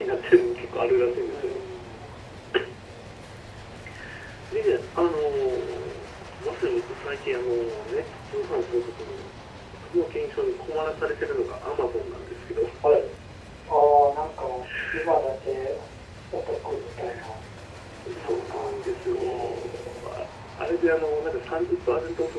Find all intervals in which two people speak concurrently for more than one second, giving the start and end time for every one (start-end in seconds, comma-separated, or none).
18.1-19.7